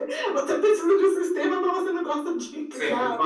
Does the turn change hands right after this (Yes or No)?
Yes